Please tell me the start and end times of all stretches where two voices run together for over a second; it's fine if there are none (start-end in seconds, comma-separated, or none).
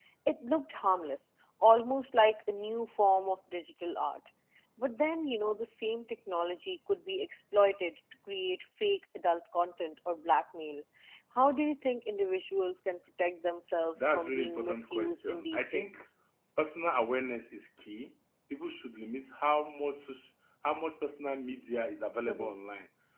13.9-16.0